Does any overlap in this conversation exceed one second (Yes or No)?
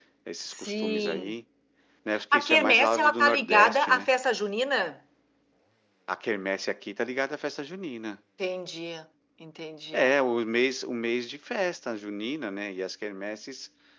Yes